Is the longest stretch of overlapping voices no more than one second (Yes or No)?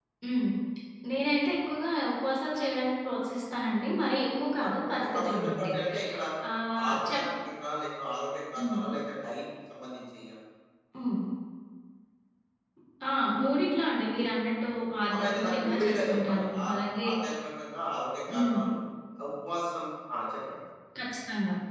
No